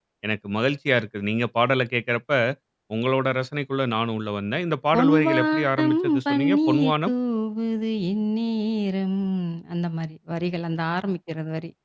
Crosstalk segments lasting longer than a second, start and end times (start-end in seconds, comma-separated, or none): 4.9-7.1